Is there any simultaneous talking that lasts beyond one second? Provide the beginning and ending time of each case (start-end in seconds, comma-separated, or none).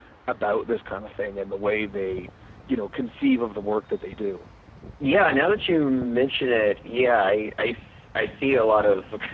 none